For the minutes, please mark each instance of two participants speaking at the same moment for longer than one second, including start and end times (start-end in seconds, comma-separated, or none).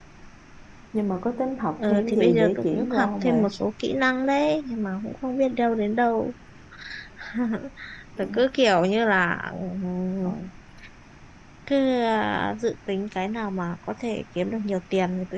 1.8-3.4